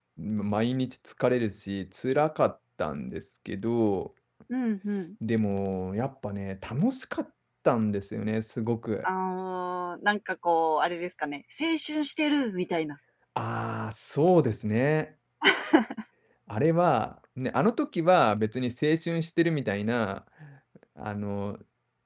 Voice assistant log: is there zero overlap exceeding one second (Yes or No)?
Yes